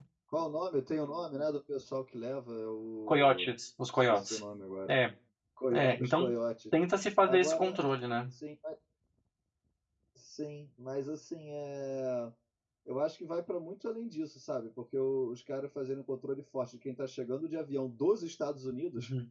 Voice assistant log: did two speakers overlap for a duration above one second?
No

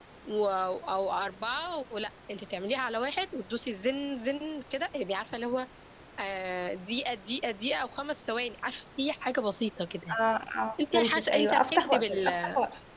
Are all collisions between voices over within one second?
No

